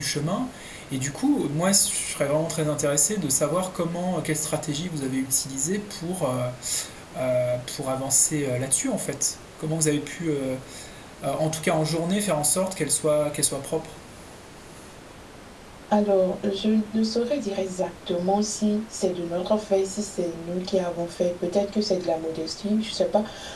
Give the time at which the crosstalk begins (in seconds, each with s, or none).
none